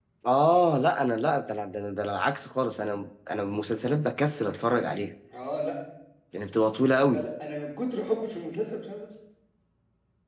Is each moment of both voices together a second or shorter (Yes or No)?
Yes